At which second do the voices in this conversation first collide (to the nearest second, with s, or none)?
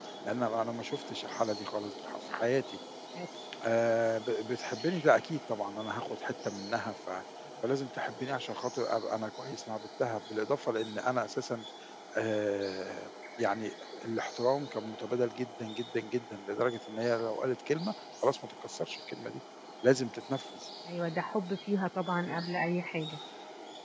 none